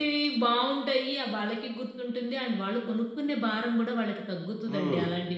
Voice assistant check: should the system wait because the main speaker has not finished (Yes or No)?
No